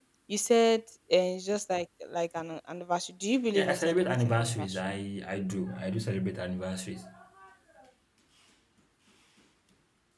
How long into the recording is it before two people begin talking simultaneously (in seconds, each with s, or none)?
3.5 s